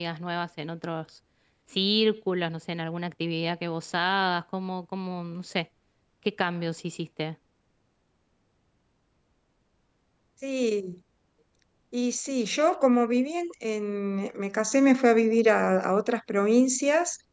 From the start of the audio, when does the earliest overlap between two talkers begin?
none

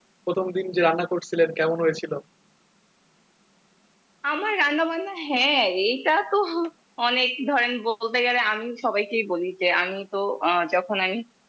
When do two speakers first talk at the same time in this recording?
none

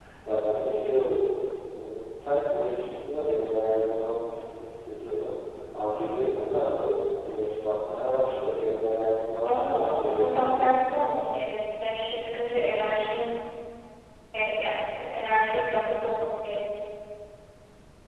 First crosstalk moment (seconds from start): 9.5 s

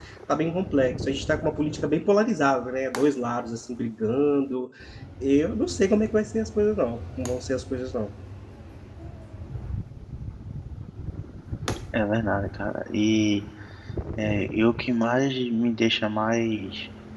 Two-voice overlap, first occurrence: none

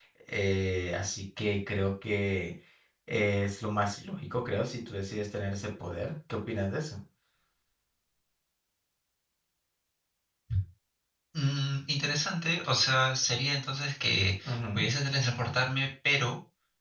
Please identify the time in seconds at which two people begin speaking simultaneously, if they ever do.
none

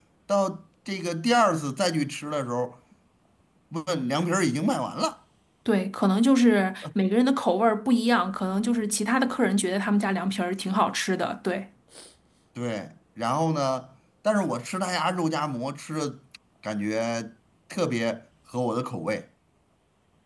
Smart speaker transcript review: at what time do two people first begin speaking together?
none

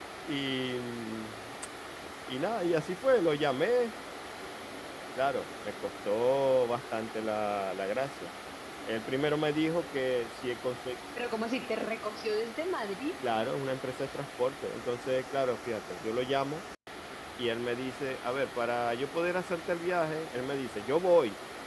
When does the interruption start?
none

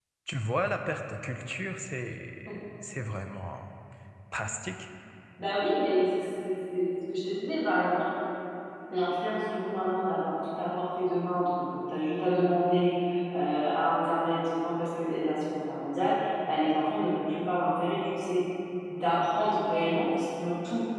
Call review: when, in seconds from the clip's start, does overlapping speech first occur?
none

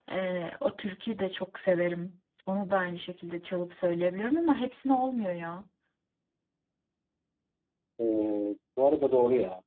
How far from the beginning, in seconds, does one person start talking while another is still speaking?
none

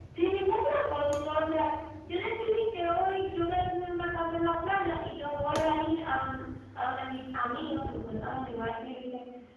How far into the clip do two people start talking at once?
none

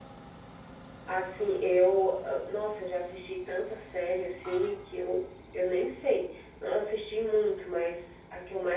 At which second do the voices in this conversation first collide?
none

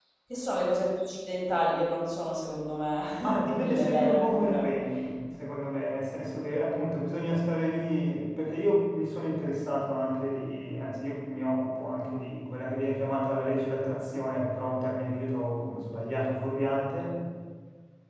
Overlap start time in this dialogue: 3.2 s

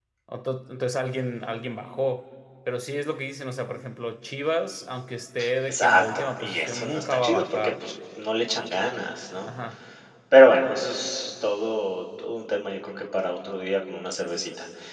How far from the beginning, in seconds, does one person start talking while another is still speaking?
5.7 s

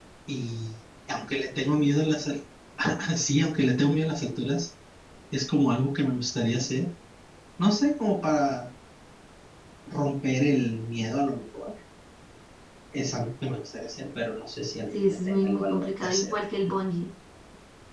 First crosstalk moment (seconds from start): 14.9 s

